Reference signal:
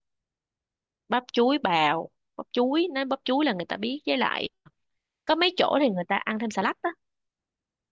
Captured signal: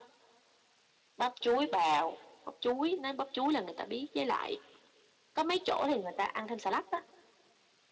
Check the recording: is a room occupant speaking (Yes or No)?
No